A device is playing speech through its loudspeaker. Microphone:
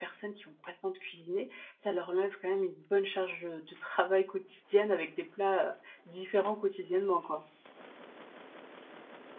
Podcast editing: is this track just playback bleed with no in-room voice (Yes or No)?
No